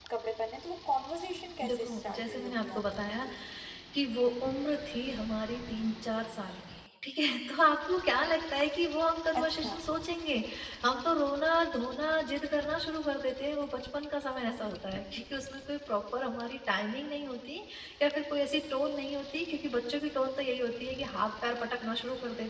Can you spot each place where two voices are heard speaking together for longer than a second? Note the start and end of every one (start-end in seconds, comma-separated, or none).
1.6-3.3